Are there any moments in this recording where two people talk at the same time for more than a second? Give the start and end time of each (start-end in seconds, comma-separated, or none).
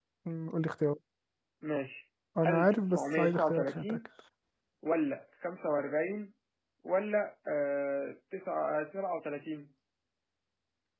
2.4-4.0